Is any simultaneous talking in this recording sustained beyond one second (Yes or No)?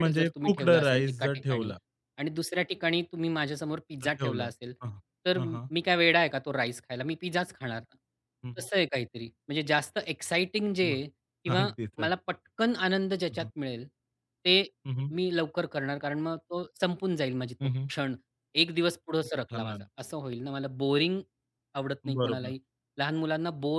Yes